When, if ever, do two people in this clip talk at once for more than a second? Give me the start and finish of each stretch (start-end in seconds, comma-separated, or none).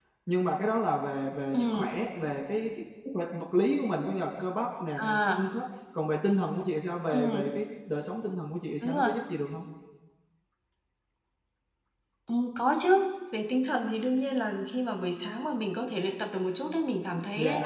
none